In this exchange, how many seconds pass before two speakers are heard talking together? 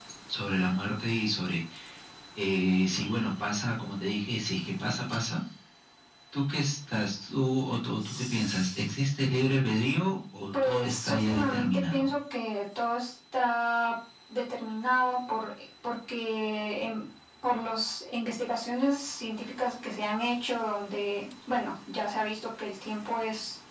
10.5 s

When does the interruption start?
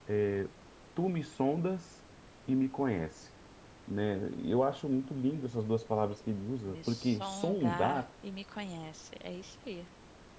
6.7 s

